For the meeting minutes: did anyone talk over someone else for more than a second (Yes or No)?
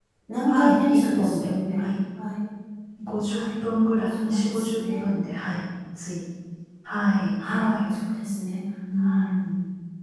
Yes